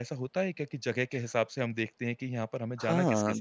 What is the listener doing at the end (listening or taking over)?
taking over